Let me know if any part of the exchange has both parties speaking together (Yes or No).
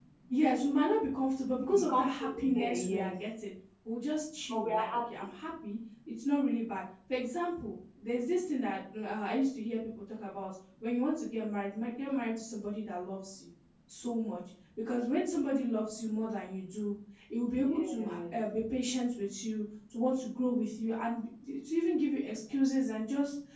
Yes